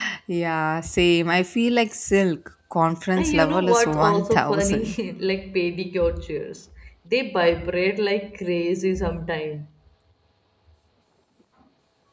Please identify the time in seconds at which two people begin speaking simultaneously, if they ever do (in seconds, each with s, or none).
3.2 s